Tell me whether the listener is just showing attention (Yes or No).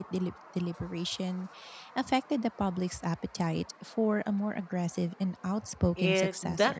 No